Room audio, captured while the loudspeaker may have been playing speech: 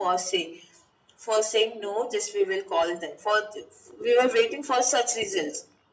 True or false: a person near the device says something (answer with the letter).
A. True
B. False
B